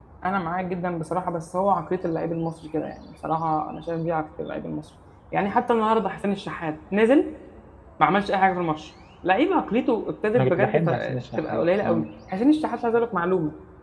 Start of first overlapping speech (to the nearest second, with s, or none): 10 s